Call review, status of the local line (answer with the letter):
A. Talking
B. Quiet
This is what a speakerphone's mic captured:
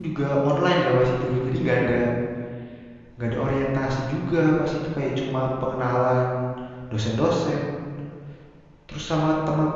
A